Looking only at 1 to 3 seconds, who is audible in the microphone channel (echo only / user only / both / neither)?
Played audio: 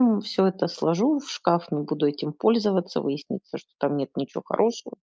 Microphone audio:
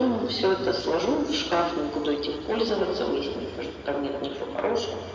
echo only